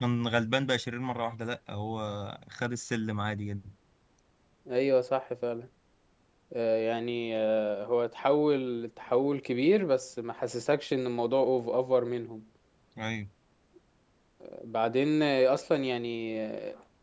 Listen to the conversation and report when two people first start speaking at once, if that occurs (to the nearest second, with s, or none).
none